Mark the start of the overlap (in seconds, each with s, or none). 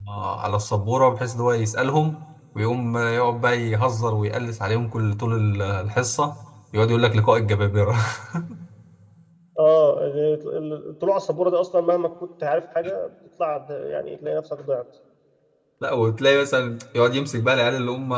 none